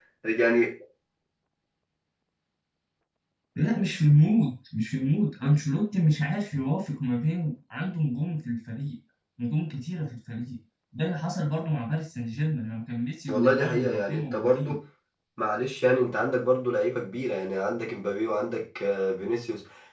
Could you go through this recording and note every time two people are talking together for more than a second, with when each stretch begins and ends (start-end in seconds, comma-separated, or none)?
13.3-14.8